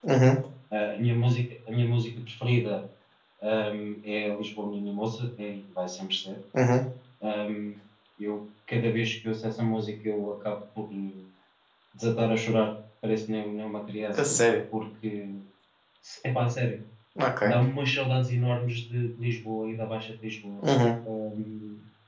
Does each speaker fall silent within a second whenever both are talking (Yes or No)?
Yes